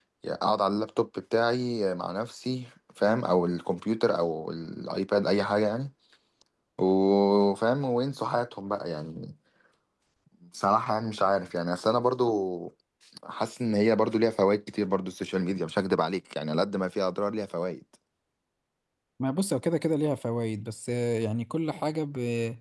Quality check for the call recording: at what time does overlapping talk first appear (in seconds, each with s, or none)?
none